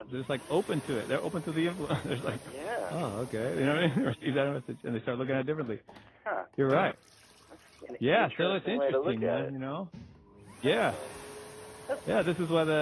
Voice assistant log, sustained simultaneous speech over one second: present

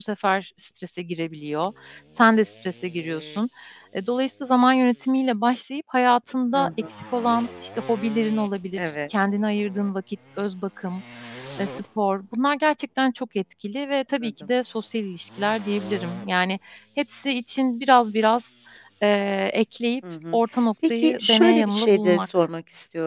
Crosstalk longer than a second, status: present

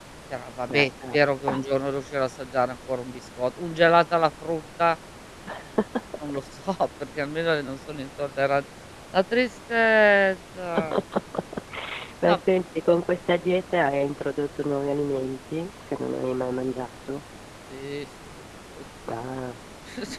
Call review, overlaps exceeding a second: none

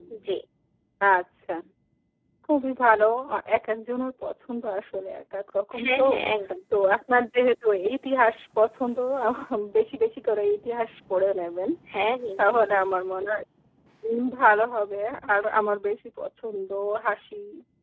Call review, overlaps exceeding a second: none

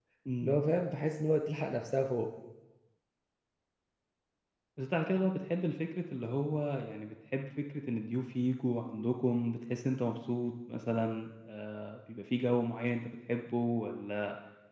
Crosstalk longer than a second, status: none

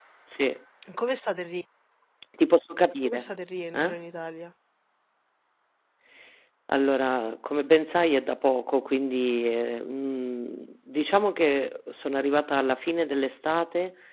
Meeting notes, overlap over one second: none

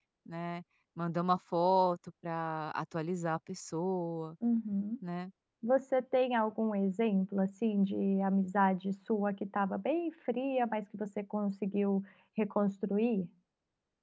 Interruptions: none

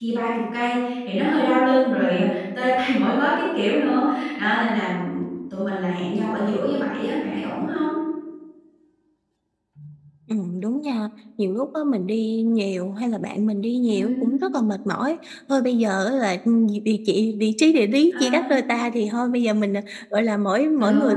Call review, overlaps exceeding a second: none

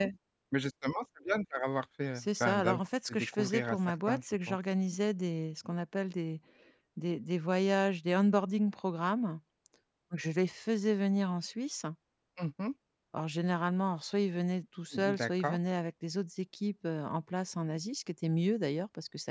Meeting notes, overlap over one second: present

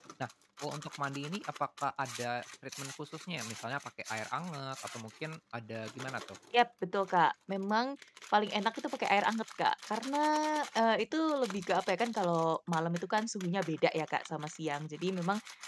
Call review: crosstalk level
none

